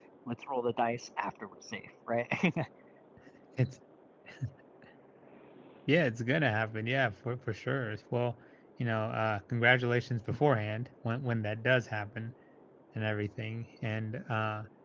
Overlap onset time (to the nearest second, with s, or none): none